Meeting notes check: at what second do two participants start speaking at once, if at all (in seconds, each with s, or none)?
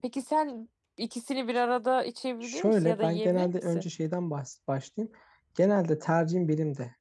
2.4 s